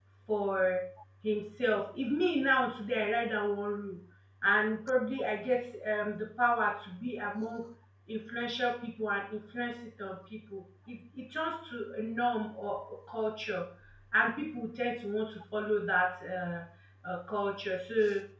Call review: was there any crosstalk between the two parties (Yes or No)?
No